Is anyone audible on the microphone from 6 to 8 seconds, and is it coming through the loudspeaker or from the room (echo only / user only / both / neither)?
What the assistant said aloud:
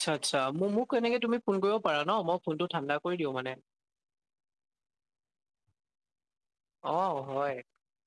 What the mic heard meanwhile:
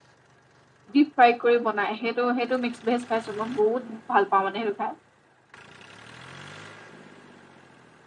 neither